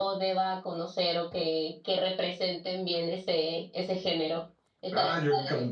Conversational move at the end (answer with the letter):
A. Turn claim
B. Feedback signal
A